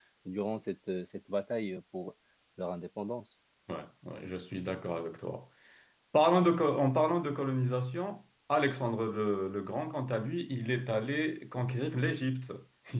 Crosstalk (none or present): none